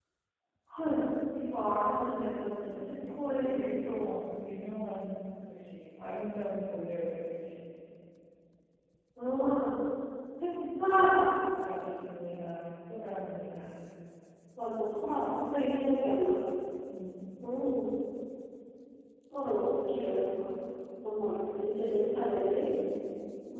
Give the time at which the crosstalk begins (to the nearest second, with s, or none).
3 s